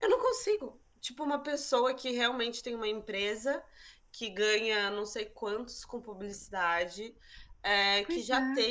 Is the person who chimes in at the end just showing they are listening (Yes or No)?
Yes